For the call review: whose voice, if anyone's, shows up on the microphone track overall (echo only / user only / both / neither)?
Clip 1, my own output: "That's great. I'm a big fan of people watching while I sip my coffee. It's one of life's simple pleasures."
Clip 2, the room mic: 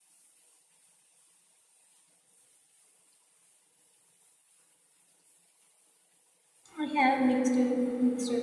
user only